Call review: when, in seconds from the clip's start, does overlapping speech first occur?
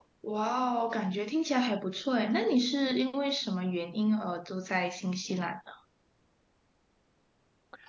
none

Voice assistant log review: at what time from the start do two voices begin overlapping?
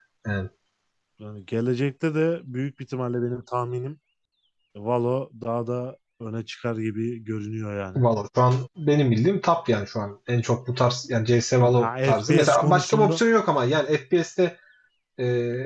11.6 s

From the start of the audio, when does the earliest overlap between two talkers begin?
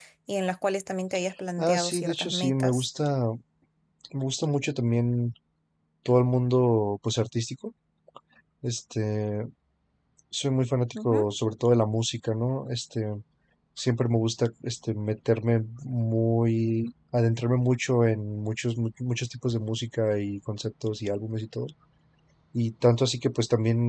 1.6 s

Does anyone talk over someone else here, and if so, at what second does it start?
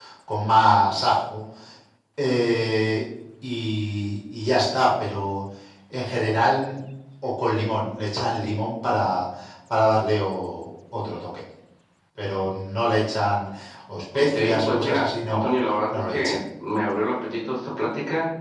14.1 s

